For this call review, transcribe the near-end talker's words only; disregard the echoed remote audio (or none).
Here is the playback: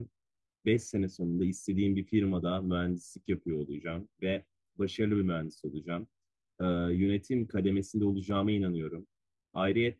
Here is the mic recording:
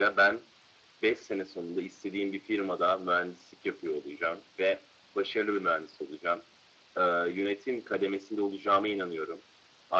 none